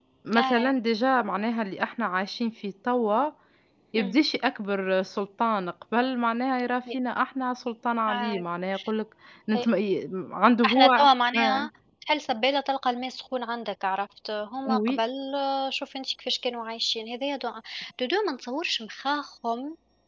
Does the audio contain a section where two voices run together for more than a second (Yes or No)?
No